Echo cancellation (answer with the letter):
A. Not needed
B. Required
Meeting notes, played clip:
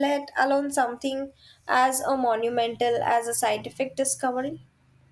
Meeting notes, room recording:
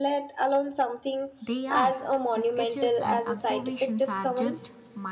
B